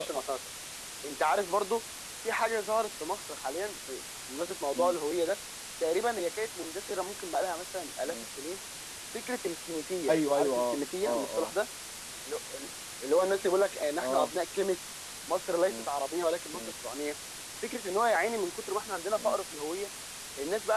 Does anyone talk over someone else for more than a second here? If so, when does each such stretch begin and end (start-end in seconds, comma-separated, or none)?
10.1-11.5